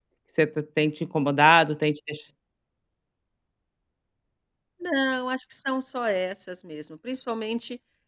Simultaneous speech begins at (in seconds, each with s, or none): none